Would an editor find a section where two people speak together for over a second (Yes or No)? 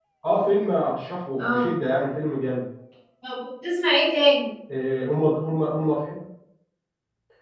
No